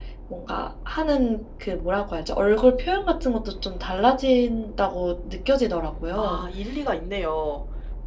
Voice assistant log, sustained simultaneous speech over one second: none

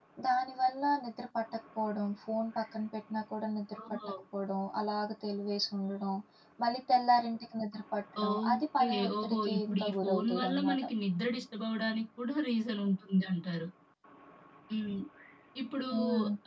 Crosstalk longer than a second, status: present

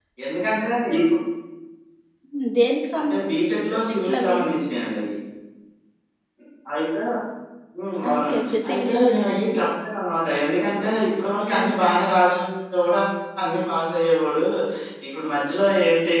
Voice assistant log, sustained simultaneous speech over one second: present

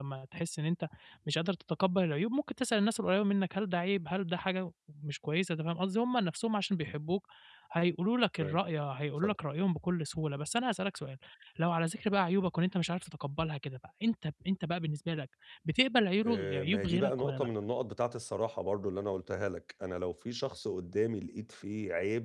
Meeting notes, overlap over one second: present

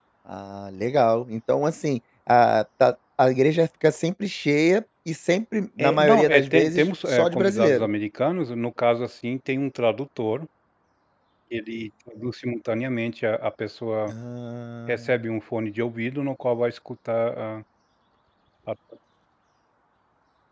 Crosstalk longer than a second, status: present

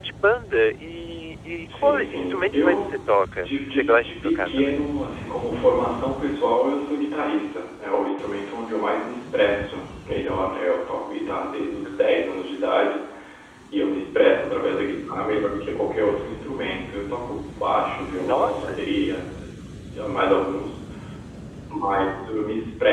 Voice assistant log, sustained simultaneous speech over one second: present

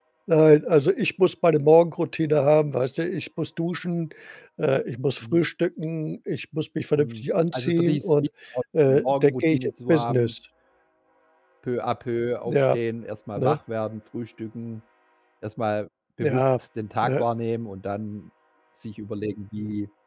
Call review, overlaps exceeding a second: present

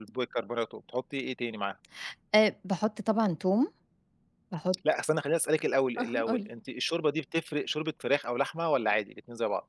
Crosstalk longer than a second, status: none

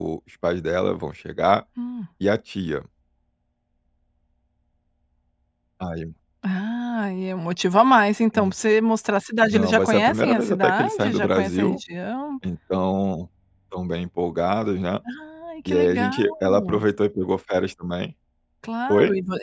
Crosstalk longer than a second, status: present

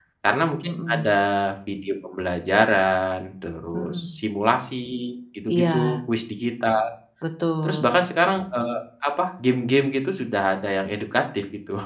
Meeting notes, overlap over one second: none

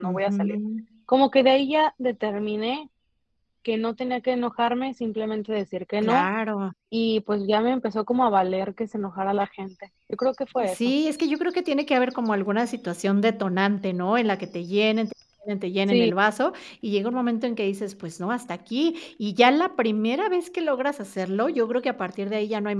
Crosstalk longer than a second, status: none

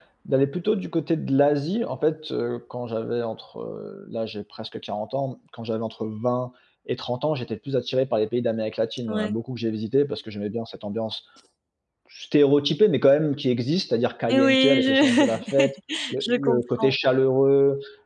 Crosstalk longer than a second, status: present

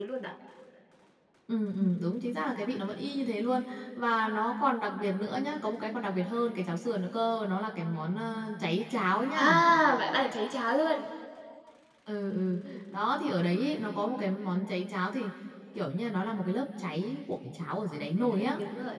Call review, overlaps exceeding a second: none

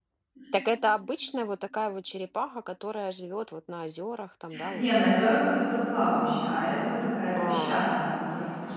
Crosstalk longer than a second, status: none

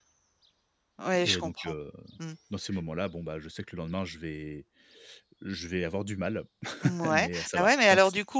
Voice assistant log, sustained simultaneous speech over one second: present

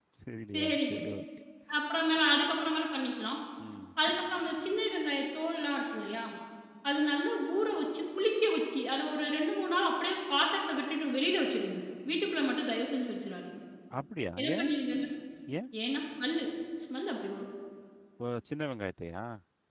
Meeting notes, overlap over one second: none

